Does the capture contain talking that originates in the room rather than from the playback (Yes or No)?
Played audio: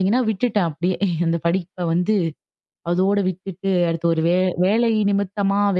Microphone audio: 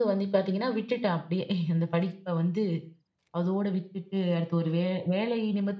No